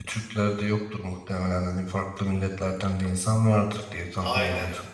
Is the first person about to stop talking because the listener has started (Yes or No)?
Yes